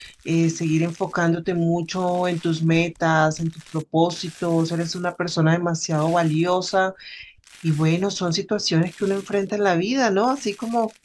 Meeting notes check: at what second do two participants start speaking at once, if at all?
none

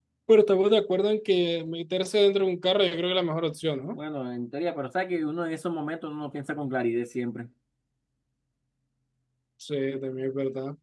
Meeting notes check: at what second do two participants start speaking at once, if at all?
none

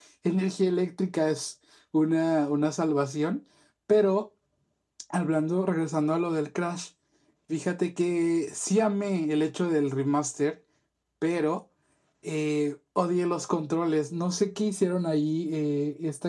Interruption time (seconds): none

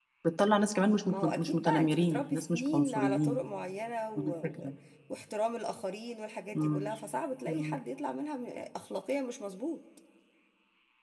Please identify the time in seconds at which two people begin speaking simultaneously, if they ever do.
1 s

